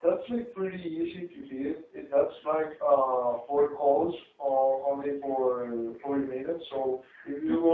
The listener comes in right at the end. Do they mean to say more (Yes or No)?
No